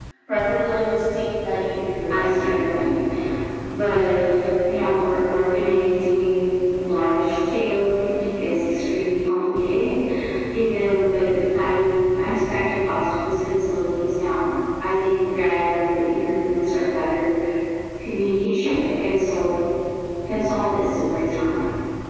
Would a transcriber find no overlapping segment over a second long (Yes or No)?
Yes